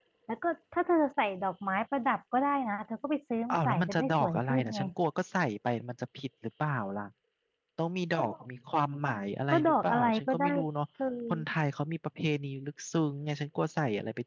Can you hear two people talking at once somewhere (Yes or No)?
Yes